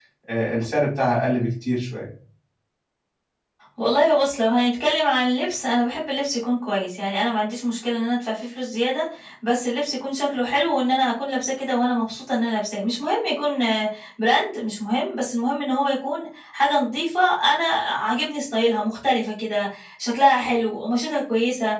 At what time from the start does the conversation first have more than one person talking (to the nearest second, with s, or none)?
none